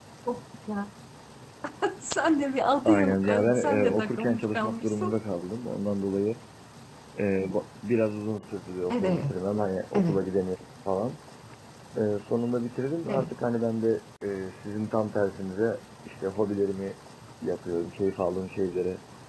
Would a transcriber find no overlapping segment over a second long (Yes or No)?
No